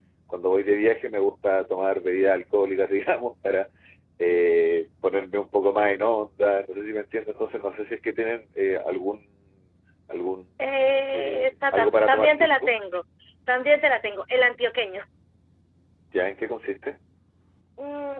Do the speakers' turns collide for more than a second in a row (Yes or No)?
Yes